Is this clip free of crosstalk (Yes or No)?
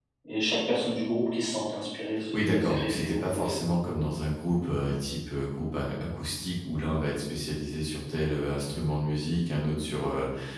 No